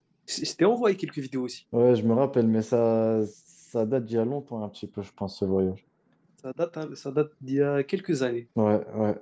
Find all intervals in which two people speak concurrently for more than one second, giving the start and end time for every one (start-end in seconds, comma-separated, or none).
none